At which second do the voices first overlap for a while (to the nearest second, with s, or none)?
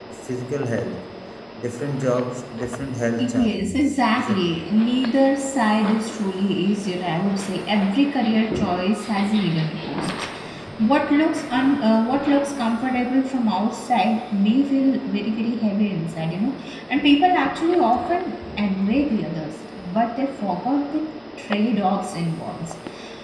3 s